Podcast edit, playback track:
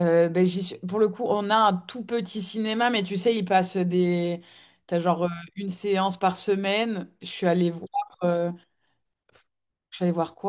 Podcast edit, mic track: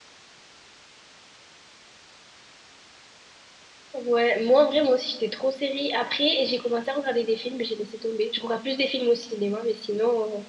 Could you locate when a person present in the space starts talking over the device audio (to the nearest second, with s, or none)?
4 s